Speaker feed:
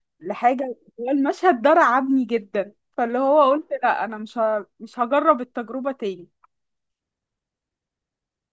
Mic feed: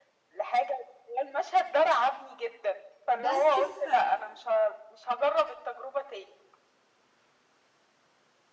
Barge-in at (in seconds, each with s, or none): 3.2 s